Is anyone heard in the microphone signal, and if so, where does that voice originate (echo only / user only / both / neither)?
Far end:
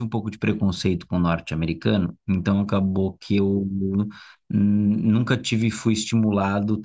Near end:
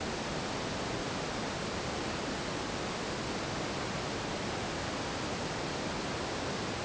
neither